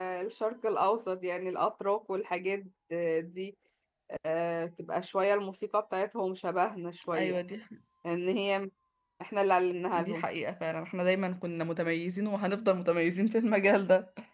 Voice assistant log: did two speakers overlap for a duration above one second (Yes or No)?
No